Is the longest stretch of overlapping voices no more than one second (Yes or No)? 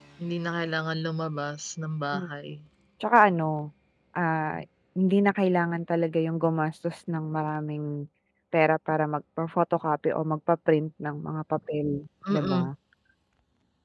Yes